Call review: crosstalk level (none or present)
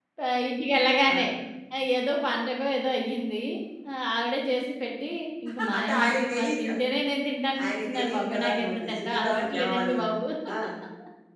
present